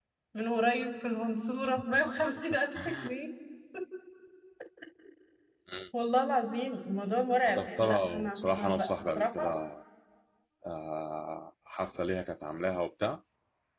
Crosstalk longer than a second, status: present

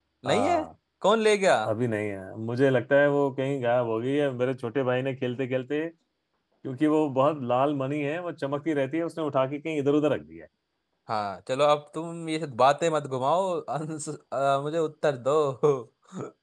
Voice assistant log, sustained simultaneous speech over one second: none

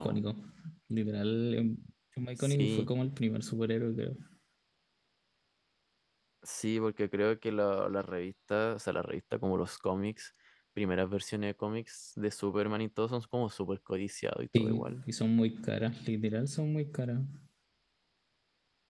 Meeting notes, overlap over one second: none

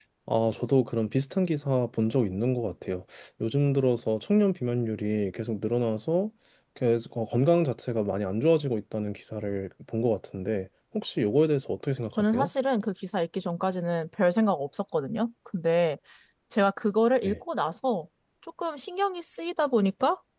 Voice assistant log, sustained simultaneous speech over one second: none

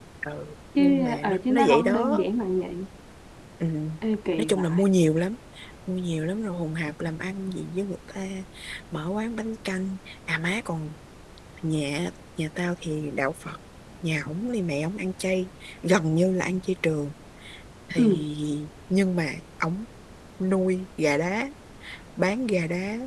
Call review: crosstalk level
present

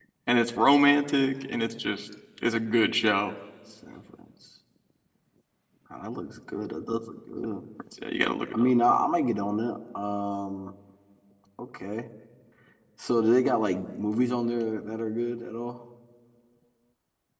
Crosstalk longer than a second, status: none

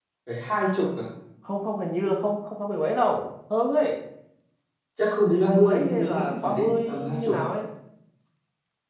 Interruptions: present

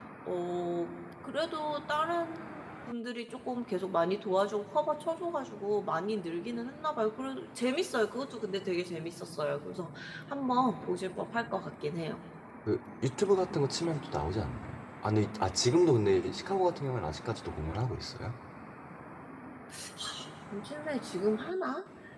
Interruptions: none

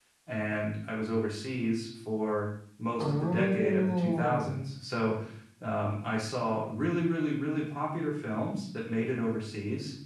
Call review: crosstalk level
present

